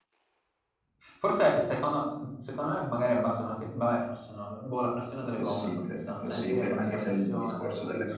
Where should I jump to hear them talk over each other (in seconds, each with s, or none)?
5.4 s